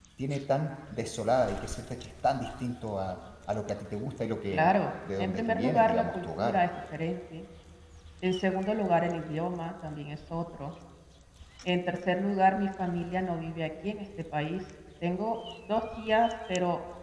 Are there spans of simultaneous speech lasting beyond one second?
Yes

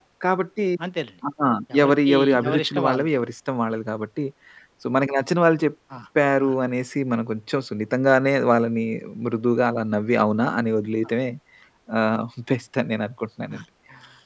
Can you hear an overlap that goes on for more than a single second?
Yes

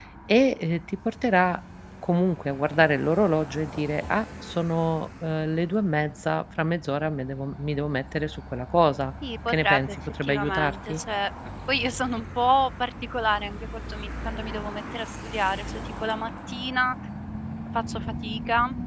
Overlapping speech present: Yes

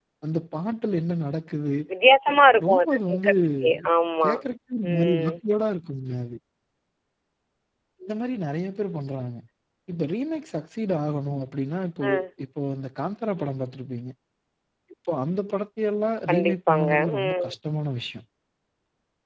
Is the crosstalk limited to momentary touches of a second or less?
No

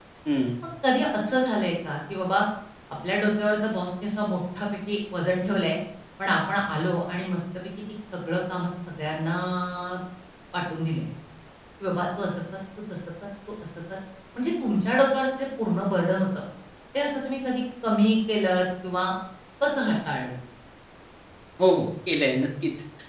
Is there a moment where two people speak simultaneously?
No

